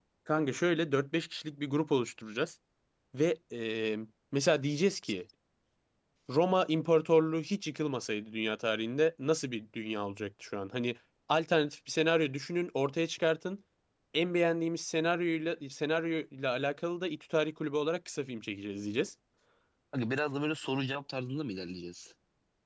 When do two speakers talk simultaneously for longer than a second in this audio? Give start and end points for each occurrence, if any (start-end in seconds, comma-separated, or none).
none